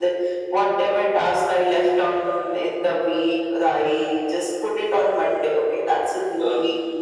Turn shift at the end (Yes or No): No